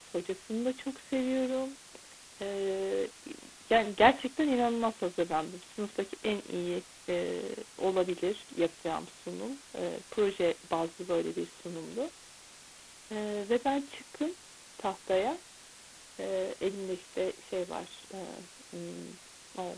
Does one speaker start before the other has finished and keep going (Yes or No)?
No